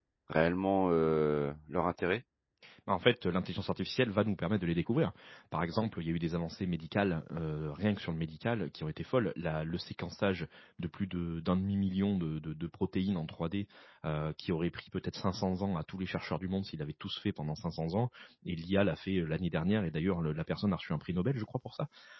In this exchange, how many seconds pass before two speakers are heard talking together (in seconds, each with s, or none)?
none